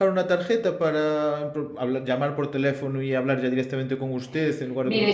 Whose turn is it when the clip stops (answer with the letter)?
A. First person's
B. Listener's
B